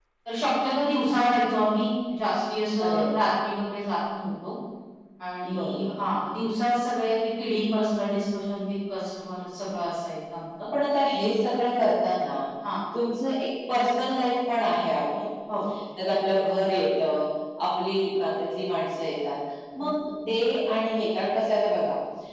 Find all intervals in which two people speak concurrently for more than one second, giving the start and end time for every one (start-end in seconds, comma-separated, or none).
none